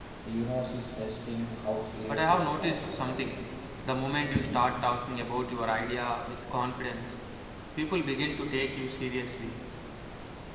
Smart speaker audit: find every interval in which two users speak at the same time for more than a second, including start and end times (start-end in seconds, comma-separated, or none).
2.1-3.4